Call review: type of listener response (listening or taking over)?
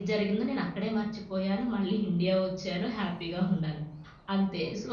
listening